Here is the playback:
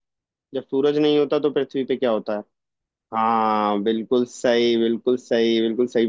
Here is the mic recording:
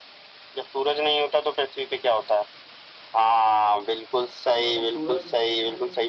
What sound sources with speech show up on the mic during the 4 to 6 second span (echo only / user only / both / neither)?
both